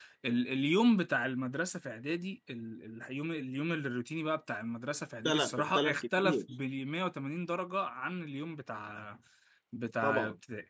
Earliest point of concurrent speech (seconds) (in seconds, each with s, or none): 5.2 s